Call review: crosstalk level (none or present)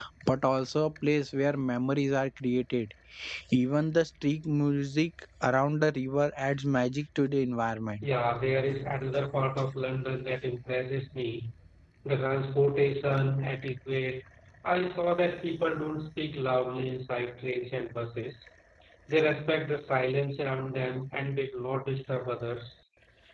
none